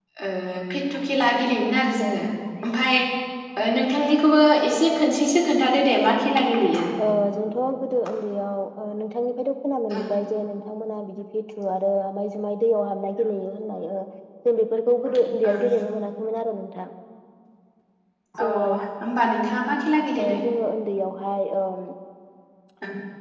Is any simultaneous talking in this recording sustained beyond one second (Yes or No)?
No